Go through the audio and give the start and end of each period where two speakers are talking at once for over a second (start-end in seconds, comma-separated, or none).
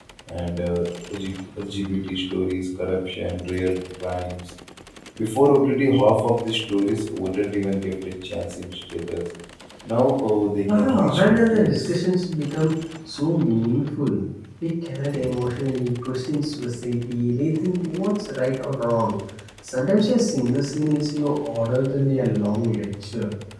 10.7-12.0